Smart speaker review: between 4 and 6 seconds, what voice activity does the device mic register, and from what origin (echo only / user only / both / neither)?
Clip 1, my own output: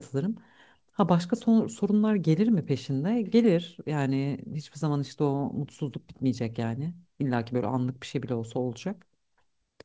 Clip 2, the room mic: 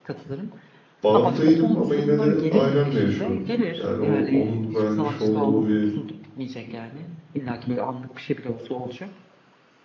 both